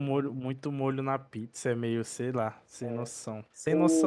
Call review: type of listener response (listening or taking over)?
taking over